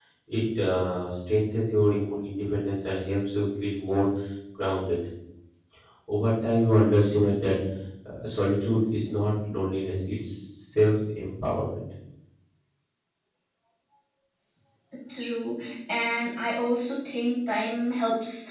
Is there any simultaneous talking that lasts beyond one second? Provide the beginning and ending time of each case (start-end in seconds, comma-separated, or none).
none